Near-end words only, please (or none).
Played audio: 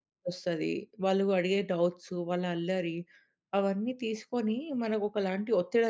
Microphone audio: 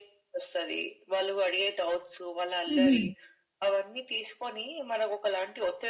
హుహు.